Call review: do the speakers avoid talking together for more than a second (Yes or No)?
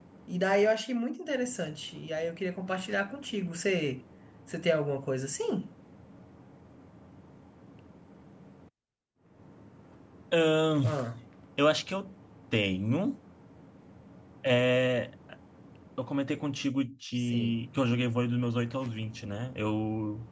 Yes